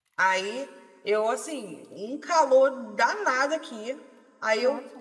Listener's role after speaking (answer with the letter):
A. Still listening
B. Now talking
A